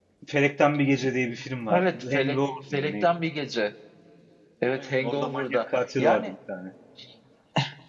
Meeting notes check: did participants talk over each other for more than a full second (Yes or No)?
Yes